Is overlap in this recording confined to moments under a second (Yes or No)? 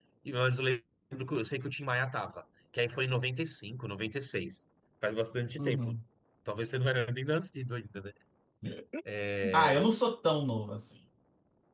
Yes